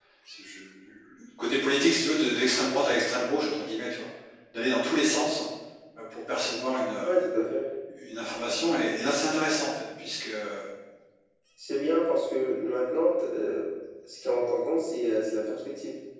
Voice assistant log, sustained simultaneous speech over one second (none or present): none